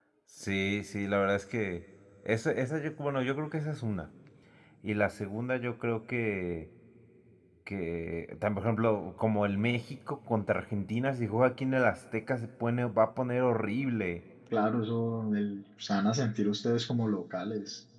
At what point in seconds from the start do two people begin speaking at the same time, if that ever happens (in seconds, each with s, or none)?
none